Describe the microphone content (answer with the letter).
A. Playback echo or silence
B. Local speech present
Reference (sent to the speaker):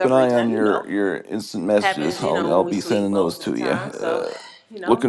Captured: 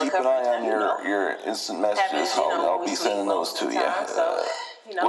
A